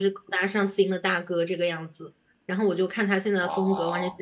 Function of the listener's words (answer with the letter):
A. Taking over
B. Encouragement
B